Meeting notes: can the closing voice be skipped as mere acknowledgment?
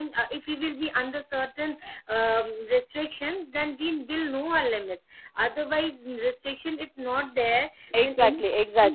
No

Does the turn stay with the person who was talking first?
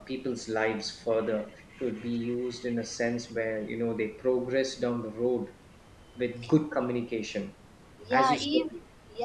No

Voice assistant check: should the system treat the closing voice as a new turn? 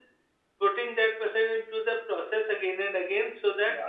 No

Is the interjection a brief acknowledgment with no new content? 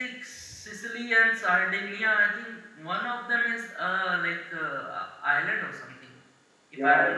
No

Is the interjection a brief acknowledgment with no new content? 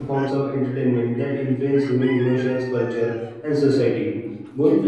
Yes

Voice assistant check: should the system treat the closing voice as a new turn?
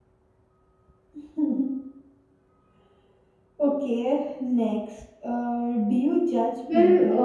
Yes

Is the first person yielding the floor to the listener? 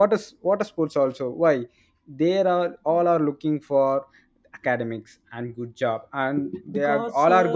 No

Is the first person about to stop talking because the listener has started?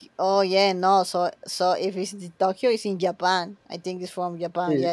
Yes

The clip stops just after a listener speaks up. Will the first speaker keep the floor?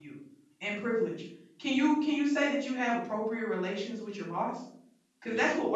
Yes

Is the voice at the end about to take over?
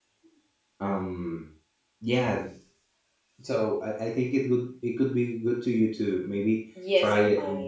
Yes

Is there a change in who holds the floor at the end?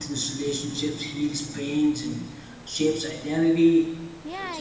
Yes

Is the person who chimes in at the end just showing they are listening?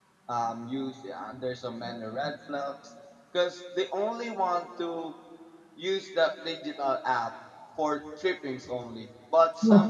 Yes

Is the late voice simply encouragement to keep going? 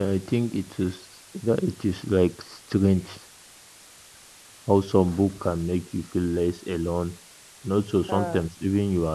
Yes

